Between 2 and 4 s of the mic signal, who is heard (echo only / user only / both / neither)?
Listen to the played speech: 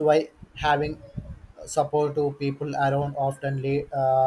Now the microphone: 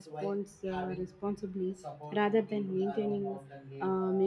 both